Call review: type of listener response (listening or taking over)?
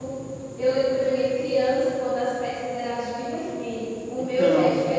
listening